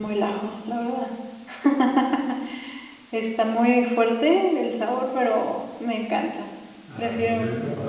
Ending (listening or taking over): taking over